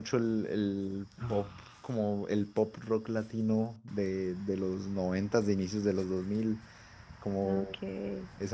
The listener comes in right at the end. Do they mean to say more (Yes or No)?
No